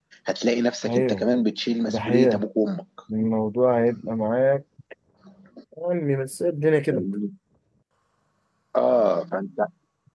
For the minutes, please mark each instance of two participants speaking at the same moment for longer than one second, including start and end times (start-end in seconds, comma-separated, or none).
none